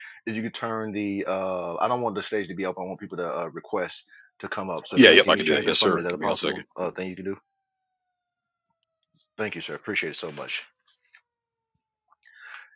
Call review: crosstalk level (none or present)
present